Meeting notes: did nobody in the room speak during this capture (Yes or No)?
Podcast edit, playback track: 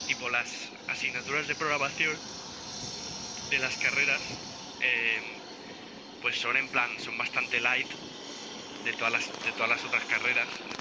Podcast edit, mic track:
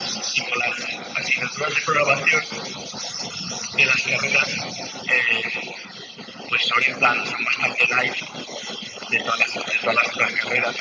Yes